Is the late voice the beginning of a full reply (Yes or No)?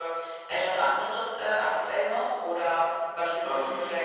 No